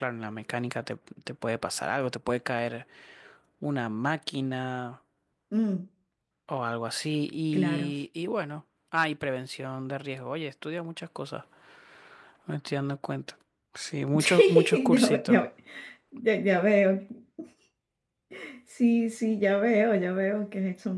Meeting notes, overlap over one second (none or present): present